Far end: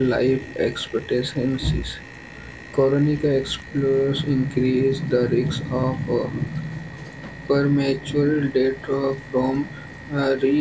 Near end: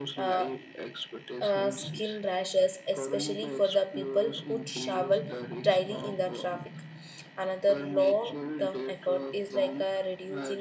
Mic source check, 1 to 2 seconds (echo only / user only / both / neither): both